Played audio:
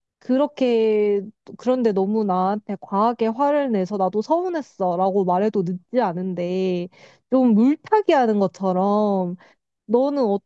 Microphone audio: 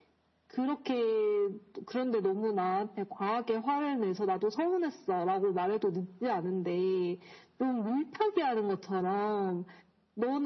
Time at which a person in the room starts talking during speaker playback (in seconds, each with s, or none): none